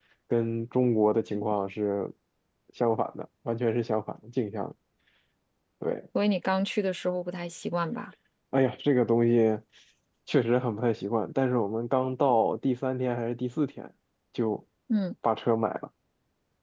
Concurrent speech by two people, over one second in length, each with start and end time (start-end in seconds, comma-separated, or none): none